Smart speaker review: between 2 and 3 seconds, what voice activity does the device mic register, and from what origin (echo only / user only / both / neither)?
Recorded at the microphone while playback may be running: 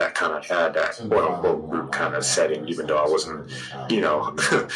both